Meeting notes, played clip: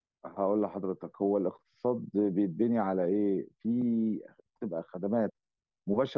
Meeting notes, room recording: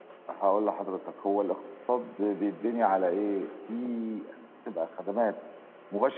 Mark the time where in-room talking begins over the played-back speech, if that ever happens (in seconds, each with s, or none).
none